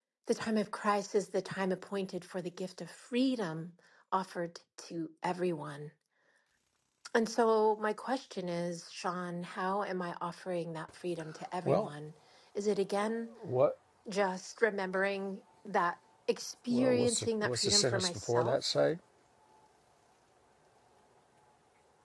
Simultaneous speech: Yes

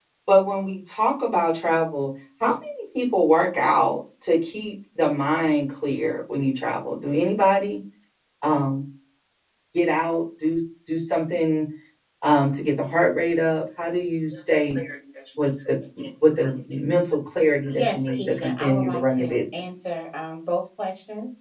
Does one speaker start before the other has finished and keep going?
Yes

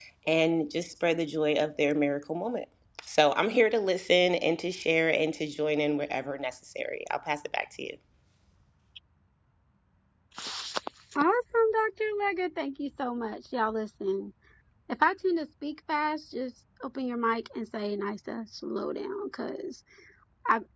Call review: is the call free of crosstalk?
Yes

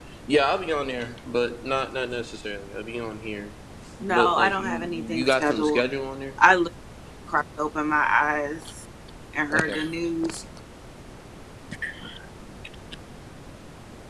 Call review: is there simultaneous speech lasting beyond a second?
Yes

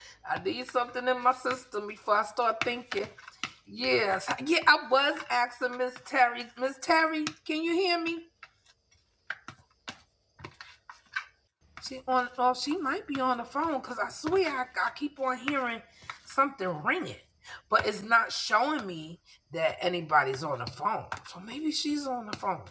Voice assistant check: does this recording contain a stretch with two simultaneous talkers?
No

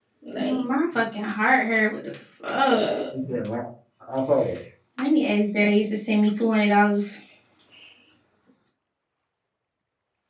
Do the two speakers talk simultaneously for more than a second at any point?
No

